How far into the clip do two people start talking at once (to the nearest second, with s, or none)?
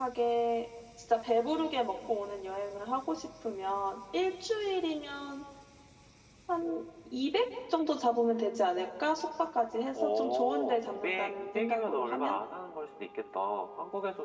10 s